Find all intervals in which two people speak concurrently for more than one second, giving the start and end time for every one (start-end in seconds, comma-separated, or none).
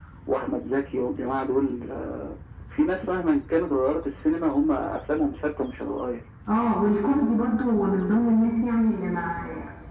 none